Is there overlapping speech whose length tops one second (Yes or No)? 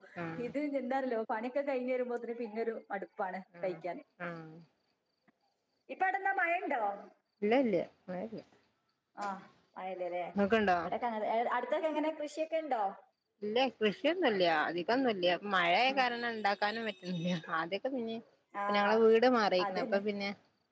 No